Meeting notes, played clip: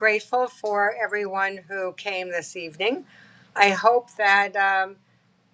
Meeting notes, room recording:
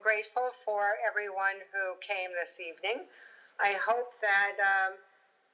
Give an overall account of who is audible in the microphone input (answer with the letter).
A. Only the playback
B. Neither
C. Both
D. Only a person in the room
A